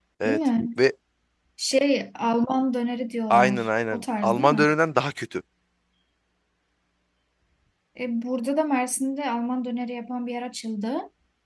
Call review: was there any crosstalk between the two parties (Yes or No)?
Yes